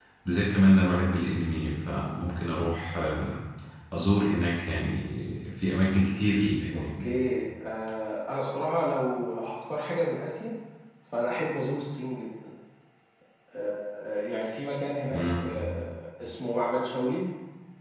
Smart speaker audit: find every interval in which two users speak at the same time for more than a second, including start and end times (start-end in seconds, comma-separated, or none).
none